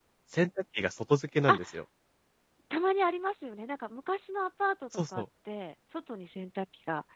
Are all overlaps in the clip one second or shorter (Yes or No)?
Yes